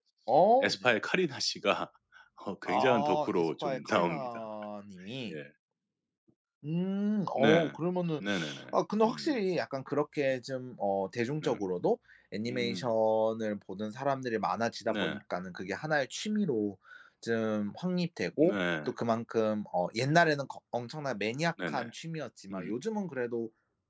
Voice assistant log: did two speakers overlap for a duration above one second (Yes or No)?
Yes